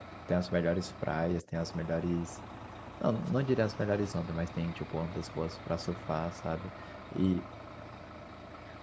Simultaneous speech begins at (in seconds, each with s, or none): none